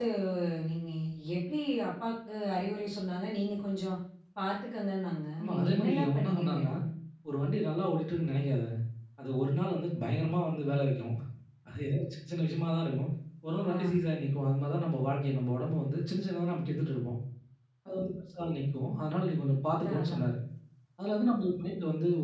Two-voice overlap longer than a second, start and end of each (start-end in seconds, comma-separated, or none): 5.4-6.7